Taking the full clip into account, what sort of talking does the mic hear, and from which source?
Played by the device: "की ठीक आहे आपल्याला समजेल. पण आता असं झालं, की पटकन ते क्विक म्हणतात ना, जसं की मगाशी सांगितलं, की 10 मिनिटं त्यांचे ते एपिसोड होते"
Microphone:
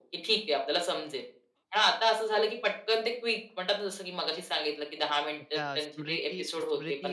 both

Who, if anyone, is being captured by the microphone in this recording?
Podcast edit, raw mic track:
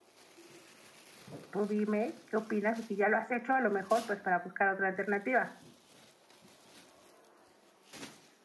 user only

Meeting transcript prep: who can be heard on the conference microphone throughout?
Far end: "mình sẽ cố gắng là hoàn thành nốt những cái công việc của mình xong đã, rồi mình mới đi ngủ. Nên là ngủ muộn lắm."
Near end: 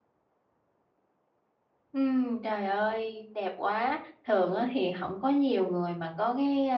user only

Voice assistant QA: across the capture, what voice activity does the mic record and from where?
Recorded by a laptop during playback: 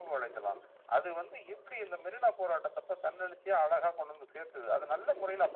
echo only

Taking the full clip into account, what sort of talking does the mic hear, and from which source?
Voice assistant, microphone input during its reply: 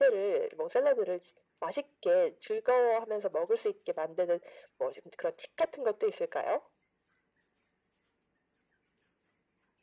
echo only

